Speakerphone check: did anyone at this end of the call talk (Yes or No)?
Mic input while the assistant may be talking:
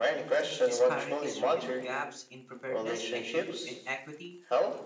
Yes